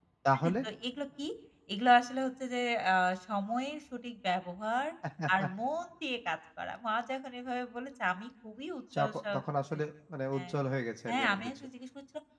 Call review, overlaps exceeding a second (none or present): none